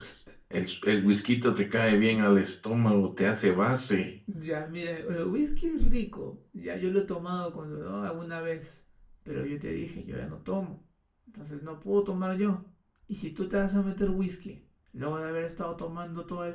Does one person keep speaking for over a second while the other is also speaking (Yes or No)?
No